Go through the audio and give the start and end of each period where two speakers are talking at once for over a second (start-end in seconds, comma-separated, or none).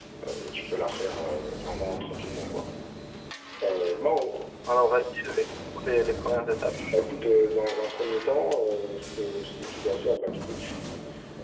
none